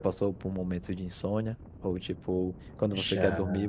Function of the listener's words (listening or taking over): listening